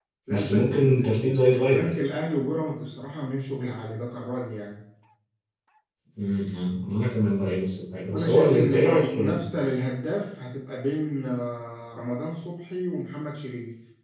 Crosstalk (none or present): present